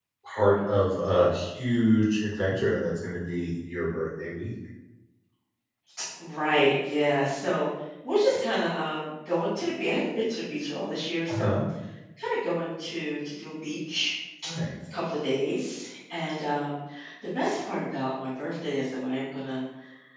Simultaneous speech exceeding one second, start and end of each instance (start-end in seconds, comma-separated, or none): none